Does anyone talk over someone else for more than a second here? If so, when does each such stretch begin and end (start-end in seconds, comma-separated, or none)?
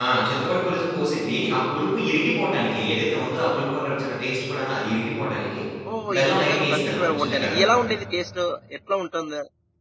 6.2-7.7